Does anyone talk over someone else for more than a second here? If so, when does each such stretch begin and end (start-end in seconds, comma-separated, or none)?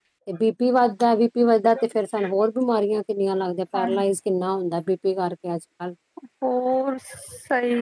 none